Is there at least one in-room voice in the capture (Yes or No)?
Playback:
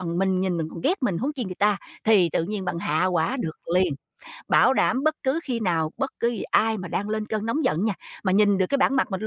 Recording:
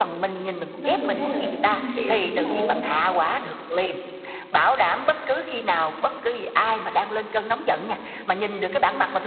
Yes